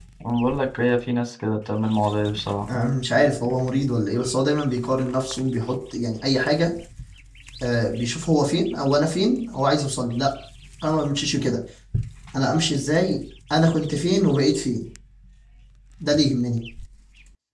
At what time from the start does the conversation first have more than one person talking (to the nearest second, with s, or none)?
none